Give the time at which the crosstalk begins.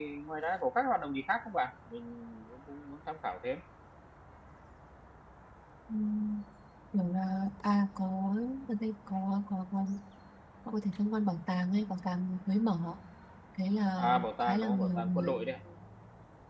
14.0 s

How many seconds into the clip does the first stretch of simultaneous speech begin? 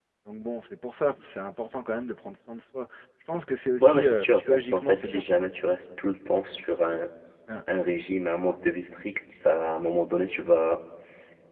3.8 s

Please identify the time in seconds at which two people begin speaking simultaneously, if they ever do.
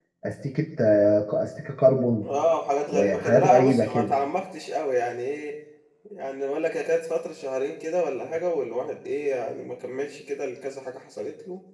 2.9 s

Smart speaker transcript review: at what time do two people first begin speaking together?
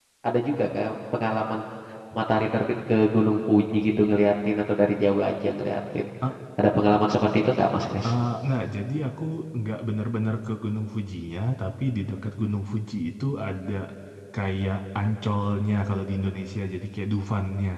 none

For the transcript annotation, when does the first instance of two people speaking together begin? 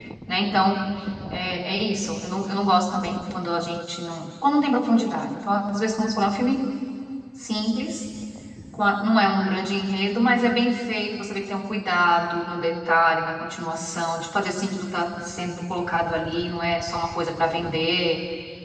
none

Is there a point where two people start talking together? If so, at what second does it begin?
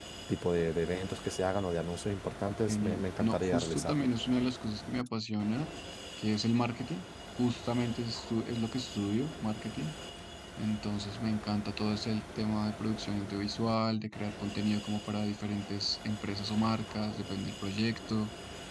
2.7 s

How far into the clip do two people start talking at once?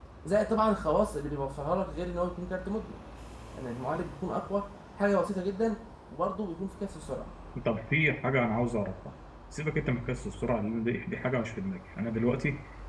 none

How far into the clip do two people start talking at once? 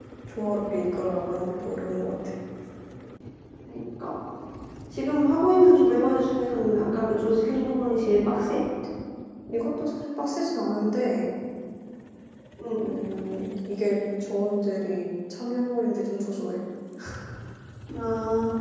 none

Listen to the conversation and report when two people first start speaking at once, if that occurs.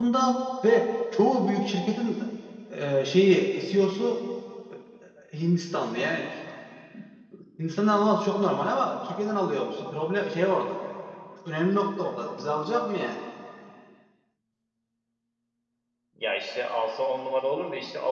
none

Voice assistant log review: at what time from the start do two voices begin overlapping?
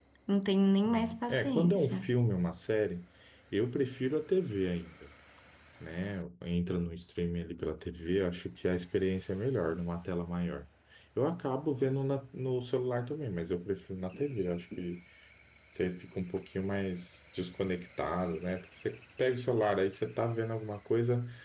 0.9 s

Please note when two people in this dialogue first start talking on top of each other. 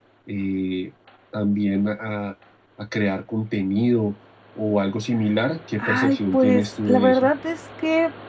5.8 s

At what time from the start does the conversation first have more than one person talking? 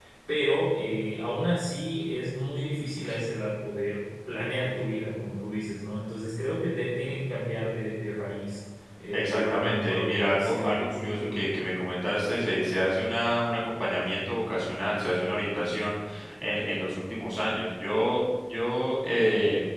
9.1 s

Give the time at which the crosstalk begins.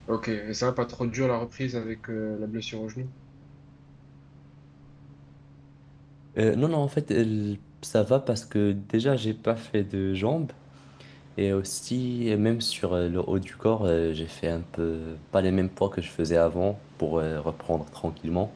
none

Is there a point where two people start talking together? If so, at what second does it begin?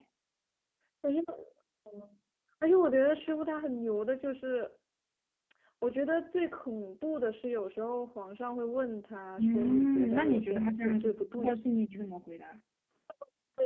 9.4 s

